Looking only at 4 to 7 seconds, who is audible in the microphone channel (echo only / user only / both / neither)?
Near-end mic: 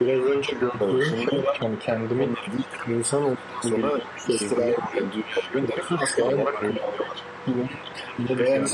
echo only